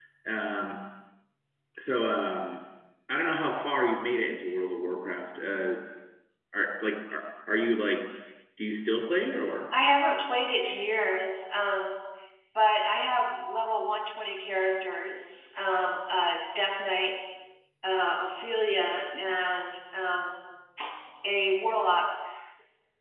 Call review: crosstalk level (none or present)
none